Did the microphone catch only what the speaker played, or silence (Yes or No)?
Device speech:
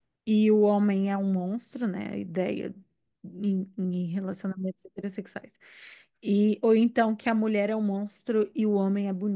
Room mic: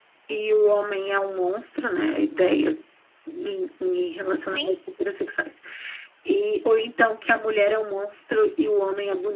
No